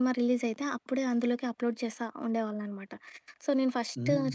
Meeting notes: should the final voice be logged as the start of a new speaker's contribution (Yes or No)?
No